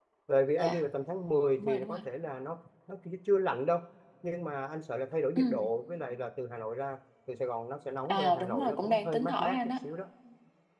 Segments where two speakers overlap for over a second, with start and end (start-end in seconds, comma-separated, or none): 8.1-9.7